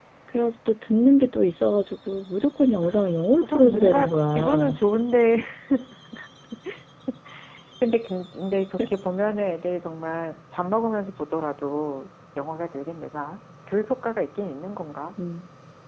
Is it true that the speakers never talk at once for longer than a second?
No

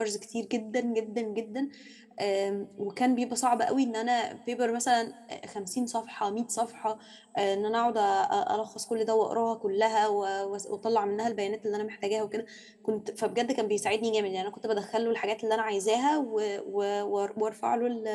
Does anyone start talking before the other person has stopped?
No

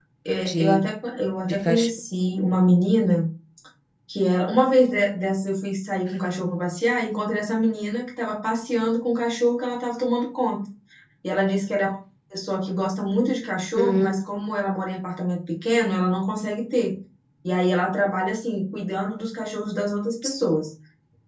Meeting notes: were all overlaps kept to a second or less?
Yes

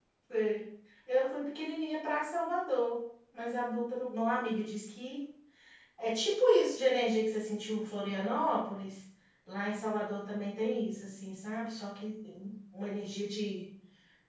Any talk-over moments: No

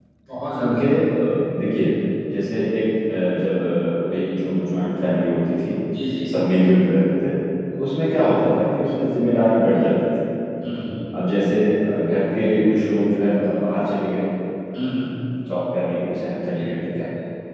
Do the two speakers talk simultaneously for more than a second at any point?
No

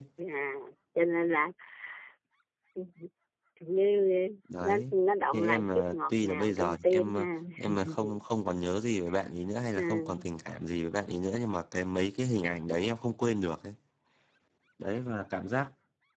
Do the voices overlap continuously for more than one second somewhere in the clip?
Yes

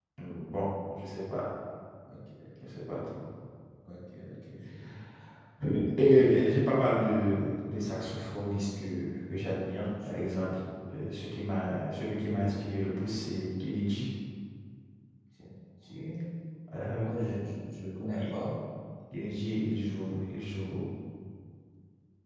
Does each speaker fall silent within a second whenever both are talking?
Yes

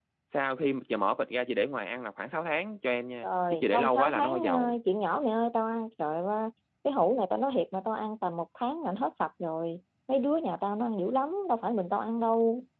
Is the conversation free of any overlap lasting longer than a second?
No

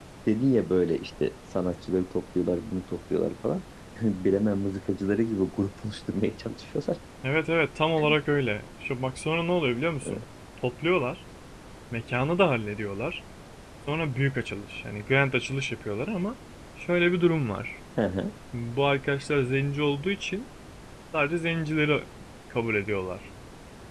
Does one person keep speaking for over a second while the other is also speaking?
No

